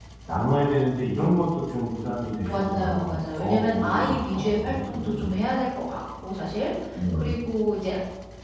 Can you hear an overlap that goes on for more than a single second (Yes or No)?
Yes